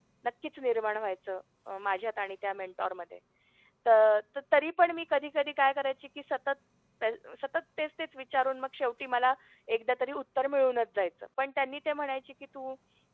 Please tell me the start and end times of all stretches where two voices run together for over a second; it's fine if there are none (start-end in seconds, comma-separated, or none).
none